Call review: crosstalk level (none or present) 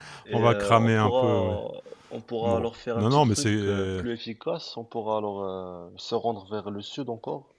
present